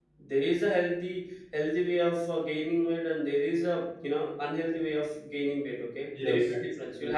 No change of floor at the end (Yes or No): No